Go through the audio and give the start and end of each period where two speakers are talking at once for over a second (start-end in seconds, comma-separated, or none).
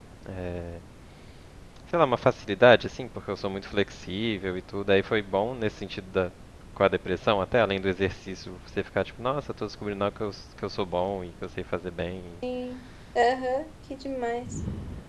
none